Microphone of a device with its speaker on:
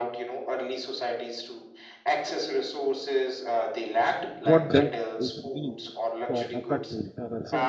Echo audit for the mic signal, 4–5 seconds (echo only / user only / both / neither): both